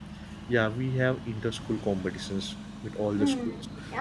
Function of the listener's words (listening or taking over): taking over